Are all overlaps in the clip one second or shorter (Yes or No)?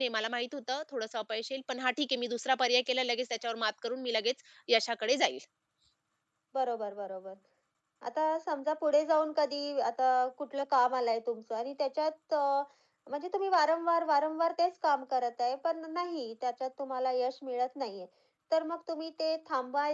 Yes